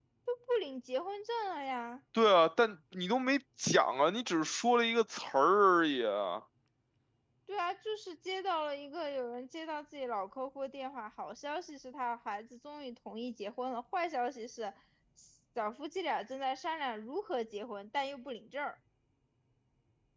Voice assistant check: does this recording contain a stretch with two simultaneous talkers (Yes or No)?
No